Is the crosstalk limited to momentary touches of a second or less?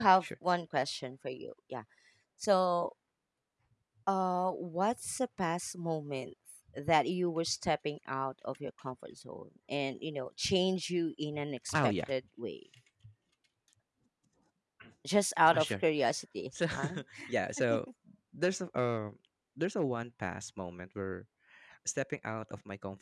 Yes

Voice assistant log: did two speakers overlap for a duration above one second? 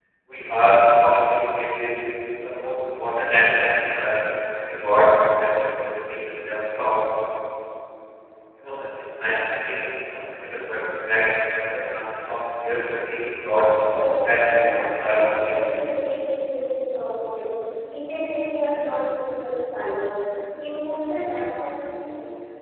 Yes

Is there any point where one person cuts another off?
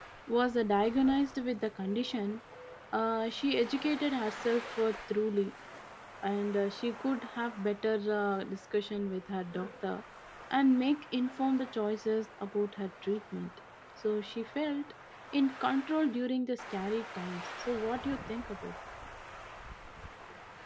No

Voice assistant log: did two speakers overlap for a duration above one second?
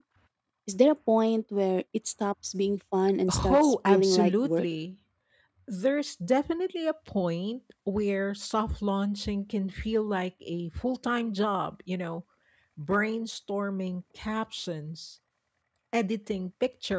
Yes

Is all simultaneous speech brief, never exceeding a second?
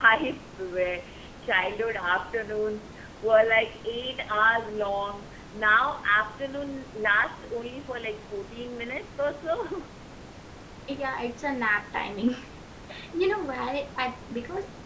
Yes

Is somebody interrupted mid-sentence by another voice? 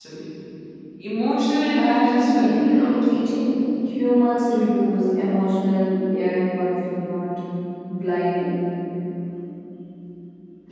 Yes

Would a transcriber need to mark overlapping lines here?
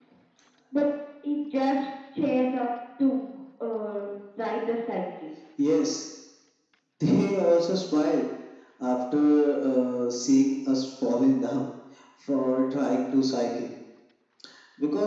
No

